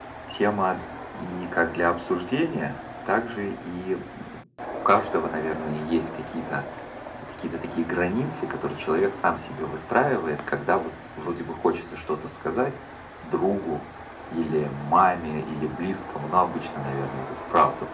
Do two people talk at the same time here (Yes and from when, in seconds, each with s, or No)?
No